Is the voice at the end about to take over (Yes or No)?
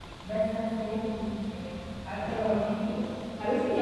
Yes